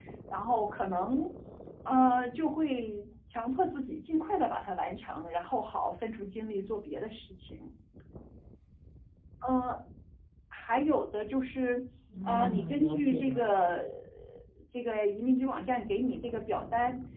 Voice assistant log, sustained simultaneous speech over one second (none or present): present